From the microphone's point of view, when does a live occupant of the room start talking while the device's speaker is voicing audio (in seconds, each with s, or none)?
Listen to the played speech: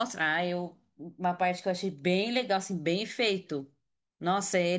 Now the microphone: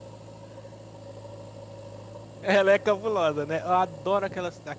2.4 s